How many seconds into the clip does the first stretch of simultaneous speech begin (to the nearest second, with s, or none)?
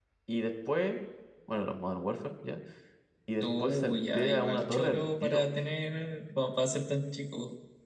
3 s